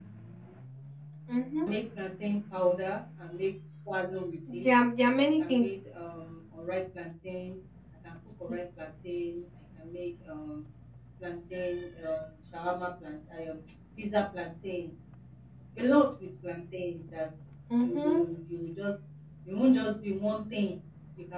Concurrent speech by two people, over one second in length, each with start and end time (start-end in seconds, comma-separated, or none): none